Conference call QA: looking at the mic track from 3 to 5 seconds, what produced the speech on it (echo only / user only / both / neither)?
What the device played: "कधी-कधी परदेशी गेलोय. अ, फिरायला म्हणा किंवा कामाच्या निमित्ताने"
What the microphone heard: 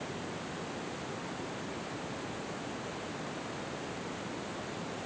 neither